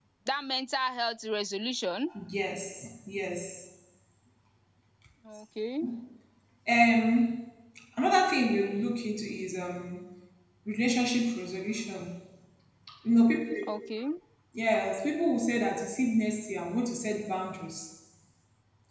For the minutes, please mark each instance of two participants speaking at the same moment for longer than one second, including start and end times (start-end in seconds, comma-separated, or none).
none